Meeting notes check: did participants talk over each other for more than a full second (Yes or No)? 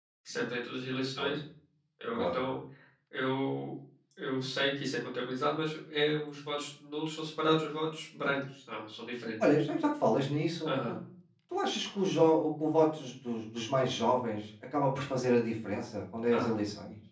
No